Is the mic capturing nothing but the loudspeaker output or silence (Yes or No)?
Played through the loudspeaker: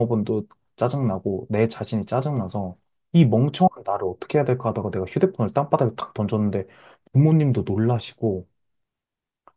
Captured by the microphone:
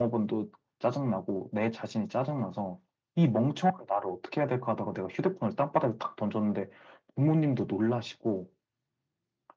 Yes